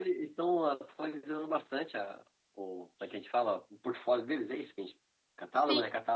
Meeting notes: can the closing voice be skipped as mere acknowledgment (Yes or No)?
No